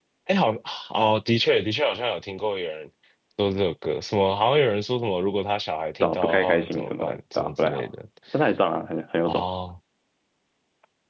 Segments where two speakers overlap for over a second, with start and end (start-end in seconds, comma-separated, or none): 6.0-7.9